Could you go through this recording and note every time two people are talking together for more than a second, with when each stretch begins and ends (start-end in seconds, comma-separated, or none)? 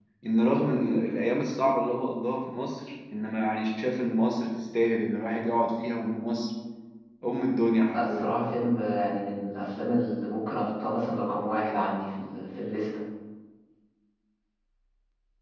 none